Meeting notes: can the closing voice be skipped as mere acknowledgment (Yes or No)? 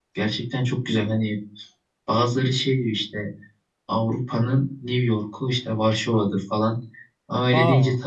Yes